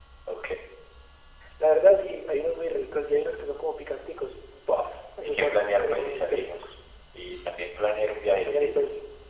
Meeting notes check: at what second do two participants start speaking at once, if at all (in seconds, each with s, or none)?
5.2 s